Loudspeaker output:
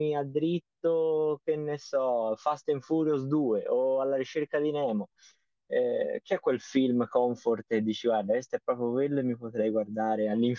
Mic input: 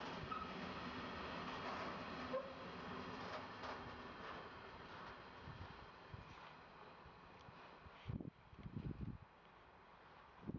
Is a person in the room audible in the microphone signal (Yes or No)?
No